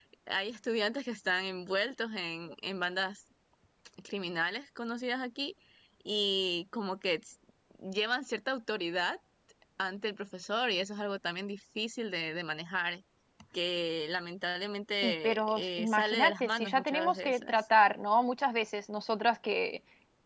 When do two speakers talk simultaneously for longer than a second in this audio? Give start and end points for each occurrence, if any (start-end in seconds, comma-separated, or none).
15.0-17.6